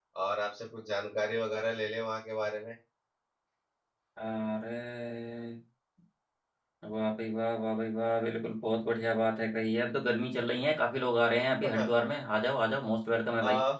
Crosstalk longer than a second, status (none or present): none